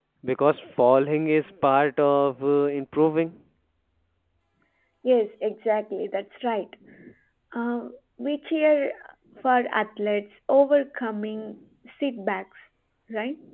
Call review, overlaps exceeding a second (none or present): none